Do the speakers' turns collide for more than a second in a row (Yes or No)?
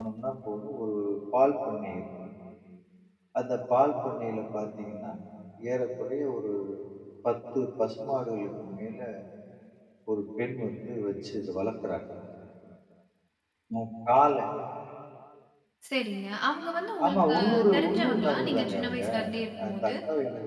Yes